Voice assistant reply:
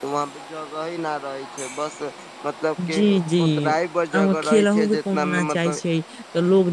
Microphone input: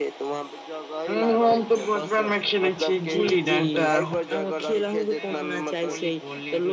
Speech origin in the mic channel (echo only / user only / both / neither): both